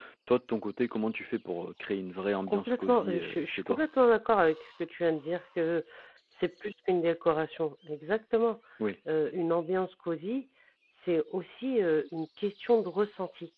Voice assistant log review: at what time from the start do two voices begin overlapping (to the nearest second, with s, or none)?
2 s